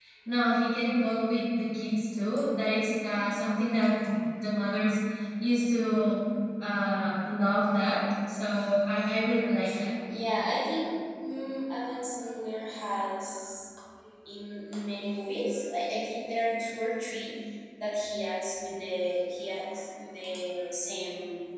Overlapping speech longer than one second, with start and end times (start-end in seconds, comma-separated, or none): none